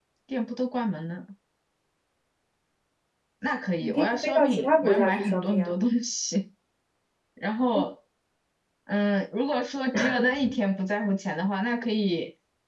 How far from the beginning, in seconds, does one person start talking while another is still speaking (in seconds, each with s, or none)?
3.8 s